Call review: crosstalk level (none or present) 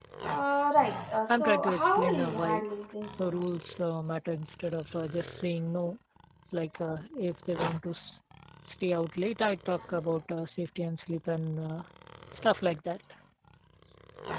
present